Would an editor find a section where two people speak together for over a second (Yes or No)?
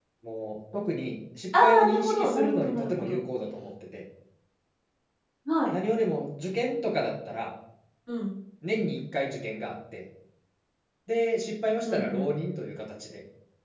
Yes